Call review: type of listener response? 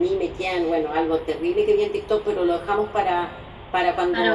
listening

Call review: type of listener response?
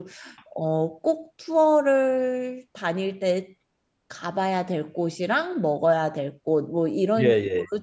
listening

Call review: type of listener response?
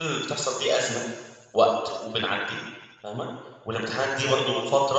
listening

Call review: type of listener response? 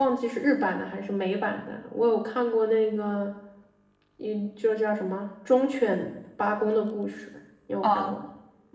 taking over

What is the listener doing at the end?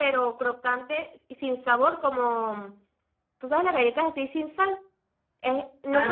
listening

